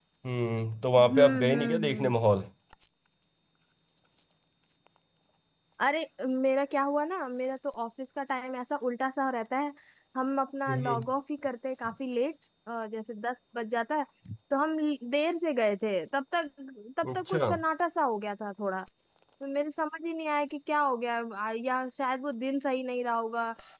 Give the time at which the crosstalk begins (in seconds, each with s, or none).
1.0 s